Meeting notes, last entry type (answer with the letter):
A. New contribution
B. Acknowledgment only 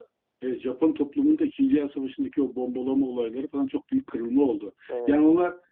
B